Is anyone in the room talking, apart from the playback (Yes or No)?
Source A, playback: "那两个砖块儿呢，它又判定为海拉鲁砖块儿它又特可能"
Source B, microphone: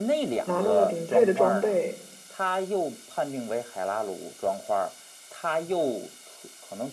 Yes